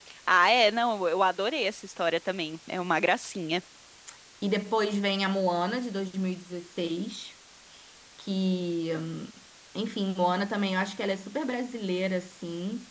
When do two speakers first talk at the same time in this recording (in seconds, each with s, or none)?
none